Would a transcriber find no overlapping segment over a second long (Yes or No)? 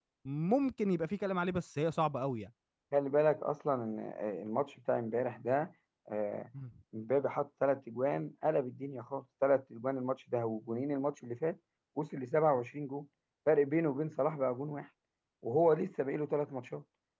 Yes